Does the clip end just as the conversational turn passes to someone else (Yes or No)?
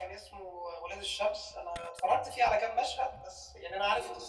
No